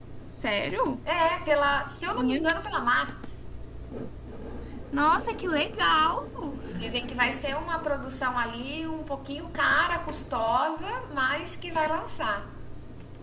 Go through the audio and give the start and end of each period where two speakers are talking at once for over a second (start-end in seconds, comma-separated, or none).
none